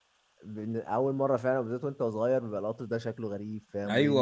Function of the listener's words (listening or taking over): taking over